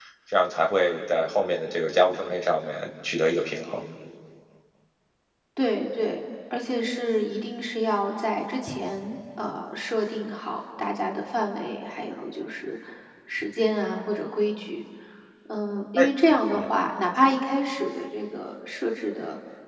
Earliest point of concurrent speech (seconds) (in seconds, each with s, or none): none